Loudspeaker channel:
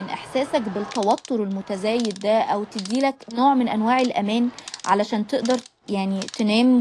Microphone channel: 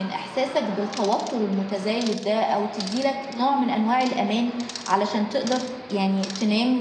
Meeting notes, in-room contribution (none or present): none